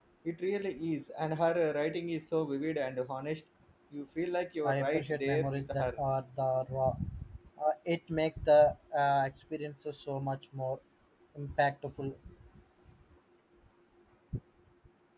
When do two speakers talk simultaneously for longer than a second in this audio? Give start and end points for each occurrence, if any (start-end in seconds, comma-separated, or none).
4.6-6.0